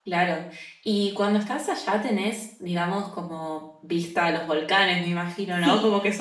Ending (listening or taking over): taking over